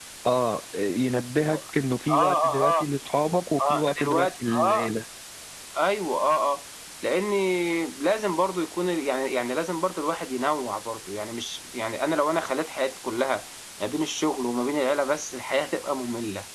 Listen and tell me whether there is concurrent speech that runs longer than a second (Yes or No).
Yes